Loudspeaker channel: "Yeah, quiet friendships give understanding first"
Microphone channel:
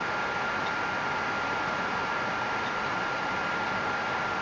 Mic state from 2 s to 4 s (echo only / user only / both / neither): neither